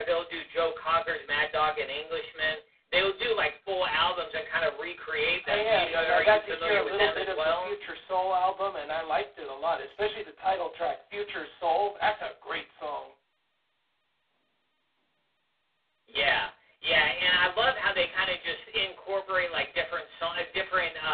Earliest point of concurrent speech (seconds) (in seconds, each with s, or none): 5.4 s